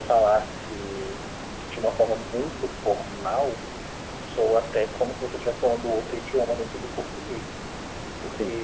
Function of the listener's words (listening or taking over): listening